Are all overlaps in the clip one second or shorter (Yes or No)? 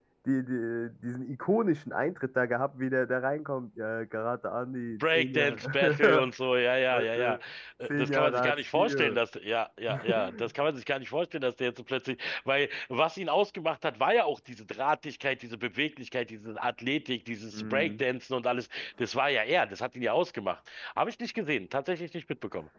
No